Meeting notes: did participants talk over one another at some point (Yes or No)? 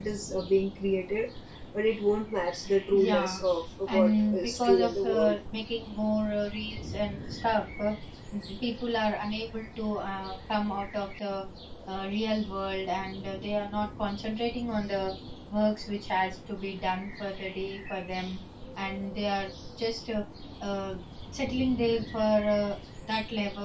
Yes